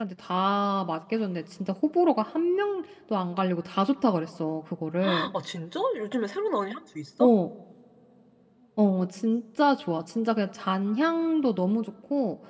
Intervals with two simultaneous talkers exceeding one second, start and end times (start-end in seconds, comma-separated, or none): none